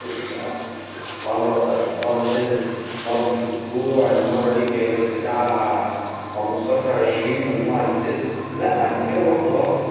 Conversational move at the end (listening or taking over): listening